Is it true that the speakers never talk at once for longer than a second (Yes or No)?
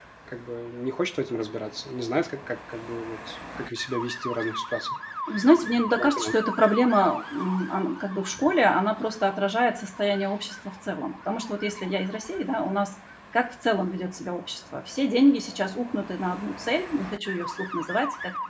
Yes